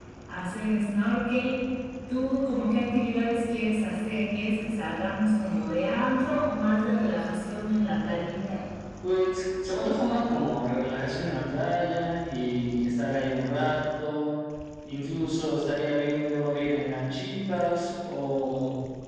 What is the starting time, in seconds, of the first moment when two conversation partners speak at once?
none

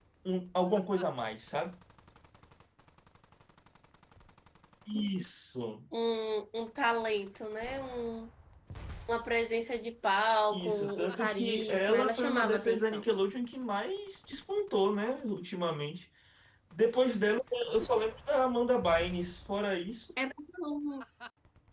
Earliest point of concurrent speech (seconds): 10.5 s

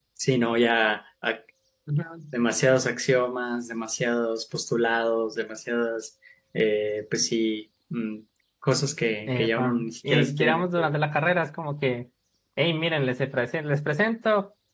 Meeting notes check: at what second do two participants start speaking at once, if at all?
9.3 s

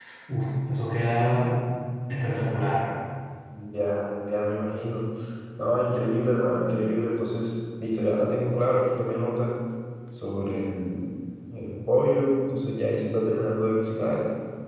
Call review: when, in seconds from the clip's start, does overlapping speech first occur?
none

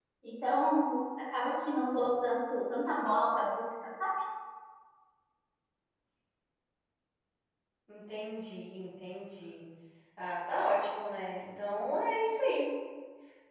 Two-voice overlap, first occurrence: none

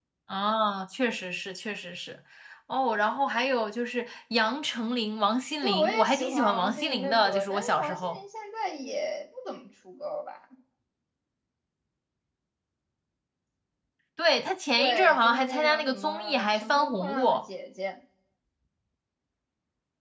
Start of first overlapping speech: 5.6 s

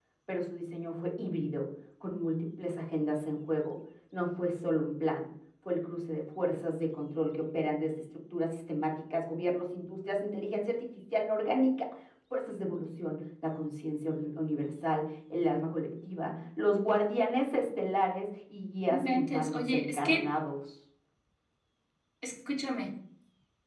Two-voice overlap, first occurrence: 18.9 s

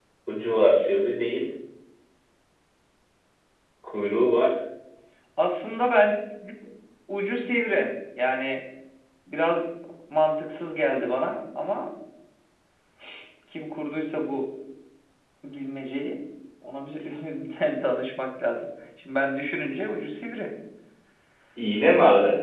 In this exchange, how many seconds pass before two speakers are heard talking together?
none

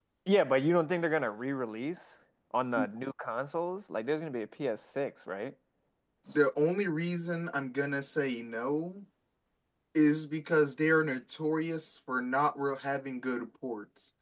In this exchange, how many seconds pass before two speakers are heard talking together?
none

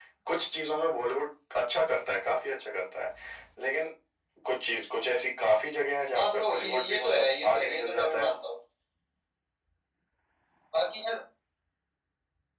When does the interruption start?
6.1 s

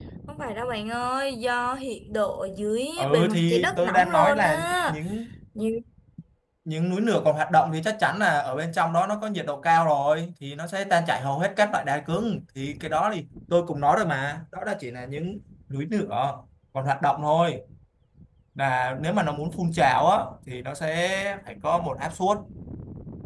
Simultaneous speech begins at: 3.0 s

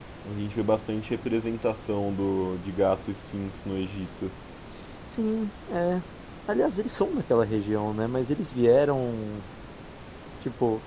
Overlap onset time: none

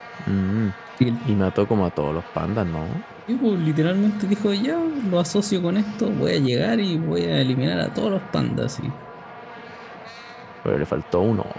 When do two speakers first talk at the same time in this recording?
none

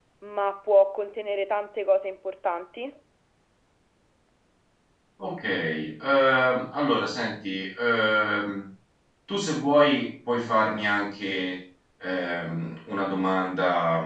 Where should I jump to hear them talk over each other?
none

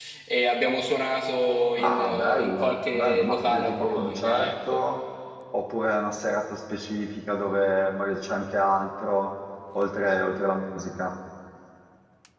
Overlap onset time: 1.8 s

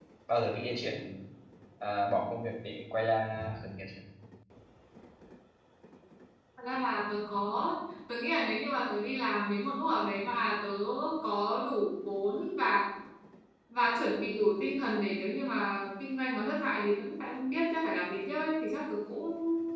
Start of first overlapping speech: none

